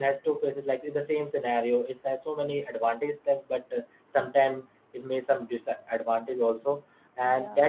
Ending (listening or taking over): listening